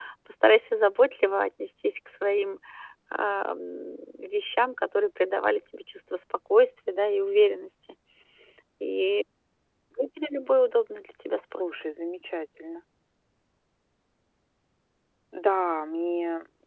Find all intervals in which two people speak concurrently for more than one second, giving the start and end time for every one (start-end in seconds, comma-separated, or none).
none